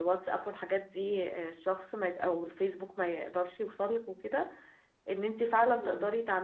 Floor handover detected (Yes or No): No